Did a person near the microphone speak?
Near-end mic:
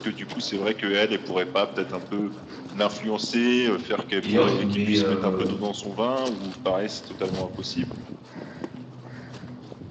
Yes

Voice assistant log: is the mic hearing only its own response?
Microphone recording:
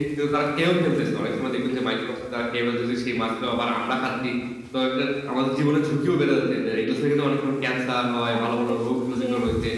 No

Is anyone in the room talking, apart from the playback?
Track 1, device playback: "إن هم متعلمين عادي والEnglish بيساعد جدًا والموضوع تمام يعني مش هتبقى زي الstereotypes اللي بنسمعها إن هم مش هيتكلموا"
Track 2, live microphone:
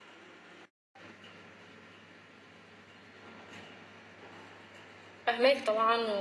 Yes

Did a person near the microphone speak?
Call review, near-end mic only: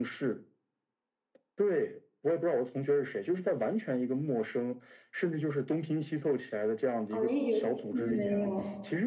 Yes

